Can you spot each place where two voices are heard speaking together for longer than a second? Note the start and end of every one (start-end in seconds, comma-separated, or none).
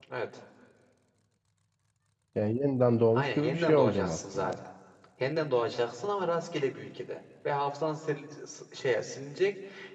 3.2-4.5